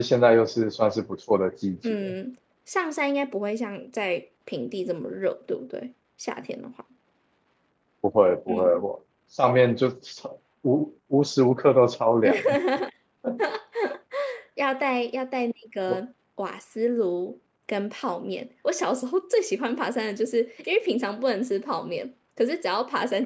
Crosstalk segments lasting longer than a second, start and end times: none

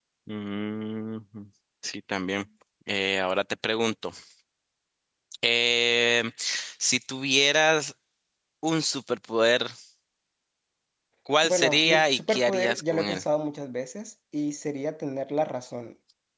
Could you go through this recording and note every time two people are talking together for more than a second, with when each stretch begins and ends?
11.4-13.2

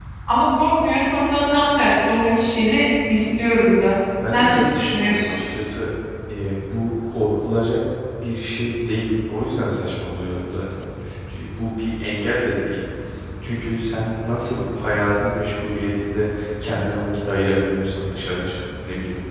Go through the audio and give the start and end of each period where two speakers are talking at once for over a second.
4.2-5.4

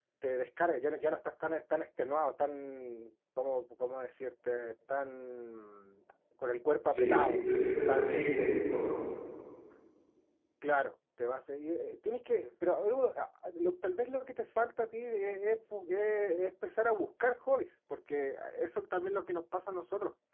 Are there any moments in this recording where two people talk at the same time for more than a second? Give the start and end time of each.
6.9-8.3

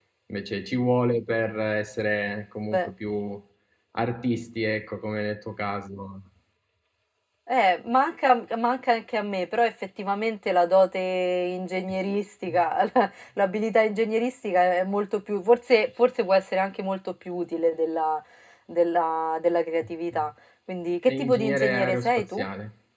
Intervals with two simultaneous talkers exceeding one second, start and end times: 21.1-22.4

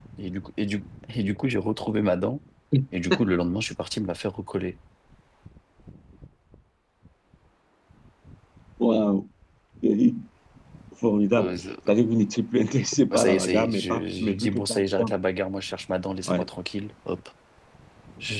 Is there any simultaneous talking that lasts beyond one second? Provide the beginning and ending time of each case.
13.1-15.1

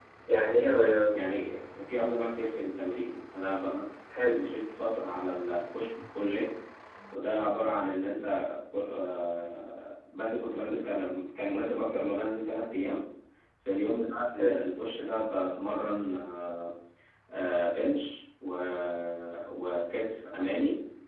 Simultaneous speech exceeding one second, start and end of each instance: none

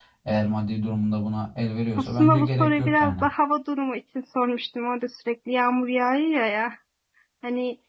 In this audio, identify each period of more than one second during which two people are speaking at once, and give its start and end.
2.0-3.2

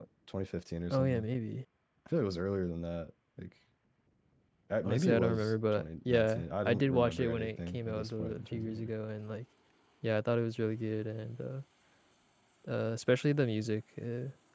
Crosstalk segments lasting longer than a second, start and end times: 4.8-8.9

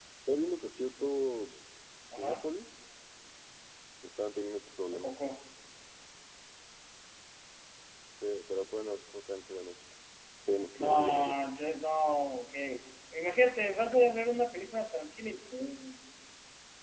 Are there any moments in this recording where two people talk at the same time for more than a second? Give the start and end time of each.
none

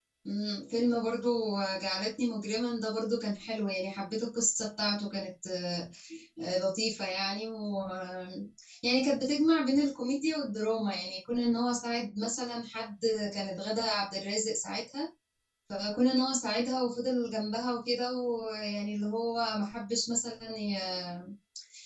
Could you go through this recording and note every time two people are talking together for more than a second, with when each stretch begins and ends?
none

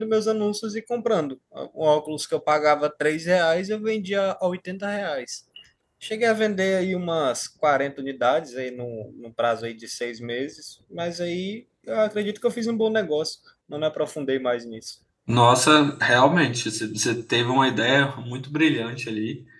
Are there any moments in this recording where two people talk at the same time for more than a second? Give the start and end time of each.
none

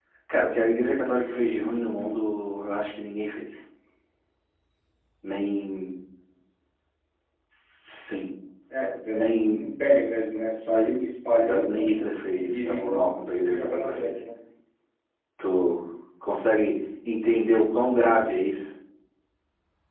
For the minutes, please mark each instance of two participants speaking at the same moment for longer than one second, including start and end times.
11.4-14.1

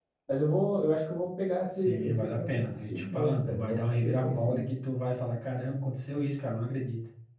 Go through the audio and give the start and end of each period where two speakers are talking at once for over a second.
1.7-4.6

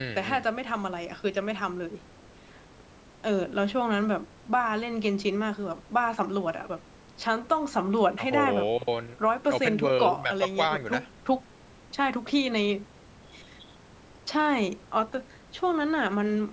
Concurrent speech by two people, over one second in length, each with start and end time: 9.5-11.0

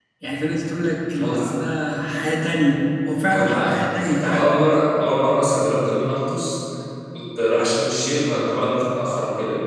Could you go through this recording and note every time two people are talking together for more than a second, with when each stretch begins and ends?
3.2-4.5

